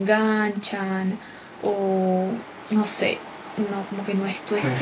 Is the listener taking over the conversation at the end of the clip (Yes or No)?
Yes